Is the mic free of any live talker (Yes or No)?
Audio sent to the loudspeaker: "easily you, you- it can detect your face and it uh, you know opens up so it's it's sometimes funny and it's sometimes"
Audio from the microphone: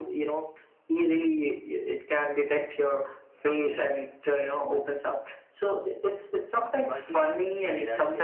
No